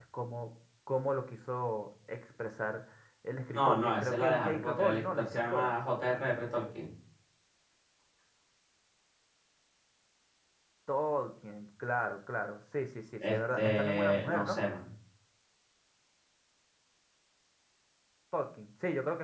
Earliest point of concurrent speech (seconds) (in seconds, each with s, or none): 3.5 s